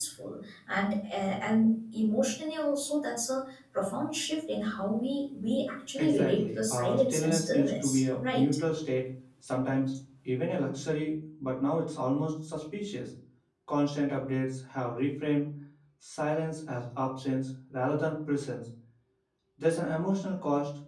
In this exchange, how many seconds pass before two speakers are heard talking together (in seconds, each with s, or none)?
6.0 s